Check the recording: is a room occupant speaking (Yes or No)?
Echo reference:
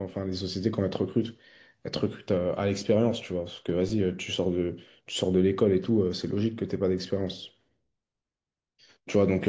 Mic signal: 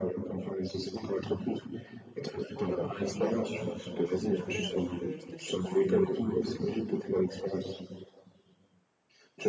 Yes